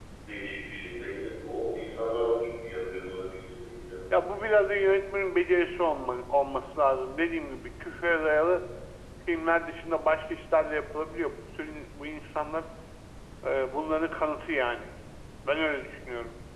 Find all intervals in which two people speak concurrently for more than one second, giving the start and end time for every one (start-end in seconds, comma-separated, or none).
none